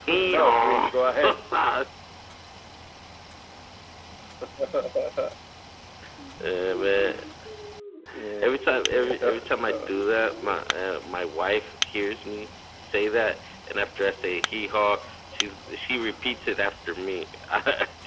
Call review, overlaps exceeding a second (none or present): present